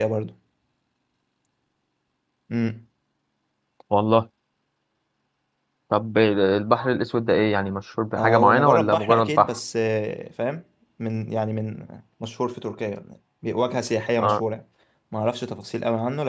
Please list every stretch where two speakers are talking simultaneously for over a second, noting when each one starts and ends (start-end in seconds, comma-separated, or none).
8.2-9.6